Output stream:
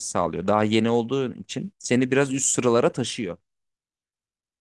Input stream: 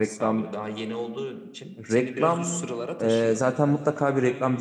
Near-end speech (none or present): present